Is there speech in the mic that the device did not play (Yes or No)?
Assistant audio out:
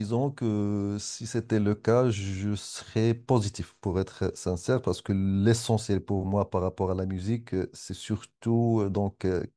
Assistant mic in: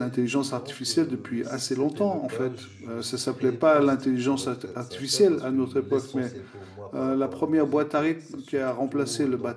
Yes